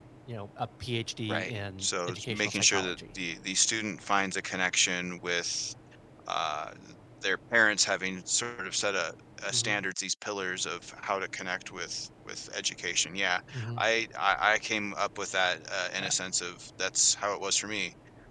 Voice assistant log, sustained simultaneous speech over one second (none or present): present